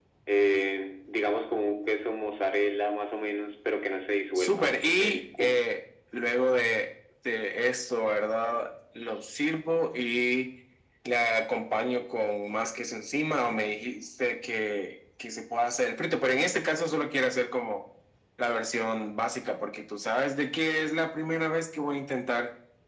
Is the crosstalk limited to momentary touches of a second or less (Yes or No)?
No